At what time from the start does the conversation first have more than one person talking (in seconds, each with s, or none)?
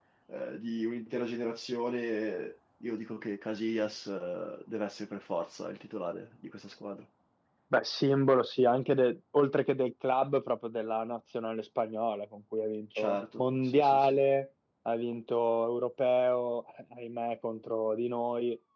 12.9 s